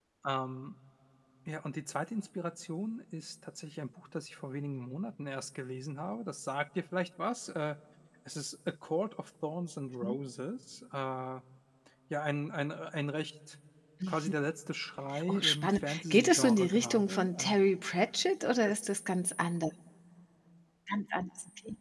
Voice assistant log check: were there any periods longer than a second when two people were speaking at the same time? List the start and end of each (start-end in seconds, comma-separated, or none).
15.3-17.5